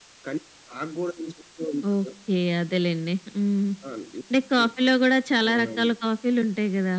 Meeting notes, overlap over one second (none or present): none